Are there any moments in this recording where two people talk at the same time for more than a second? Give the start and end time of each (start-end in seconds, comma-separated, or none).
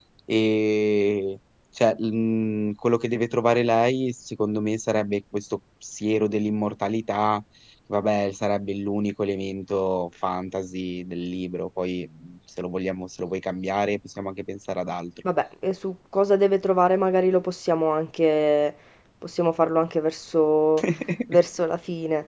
none